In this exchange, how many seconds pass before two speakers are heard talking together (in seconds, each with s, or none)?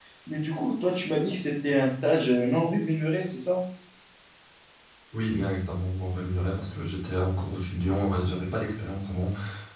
none